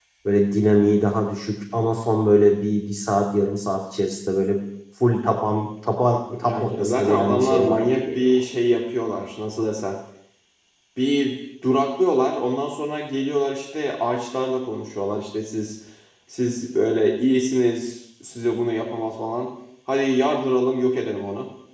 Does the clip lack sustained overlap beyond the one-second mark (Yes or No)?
No